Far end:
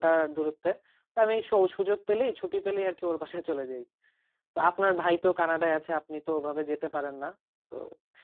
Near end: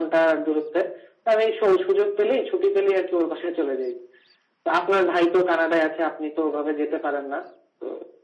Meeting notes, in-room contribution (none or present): none